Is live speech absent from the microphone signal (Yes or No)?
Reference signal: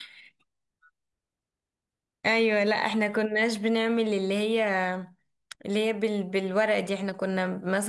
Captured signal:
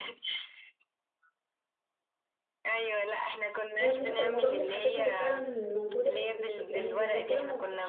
No